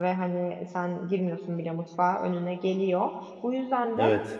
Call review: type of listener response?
listening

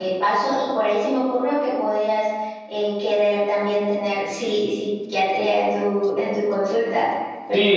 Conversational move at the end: taking over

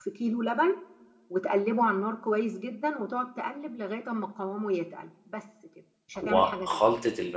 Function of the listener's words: taking over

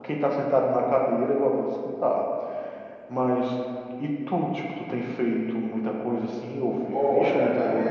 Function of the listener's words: taking over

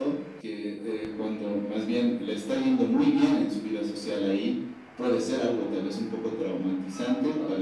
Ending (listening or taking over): listening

